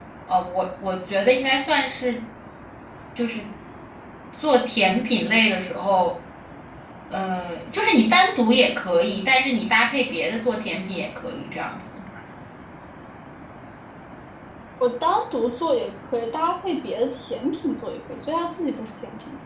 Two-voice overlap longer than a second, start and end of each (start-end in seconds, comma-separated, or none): none